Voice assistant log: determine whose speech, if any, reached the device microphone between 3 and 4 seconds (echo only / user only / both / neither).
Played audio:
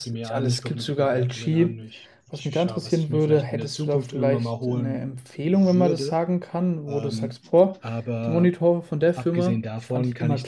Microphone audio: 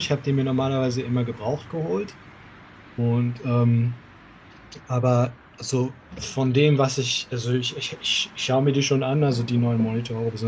user only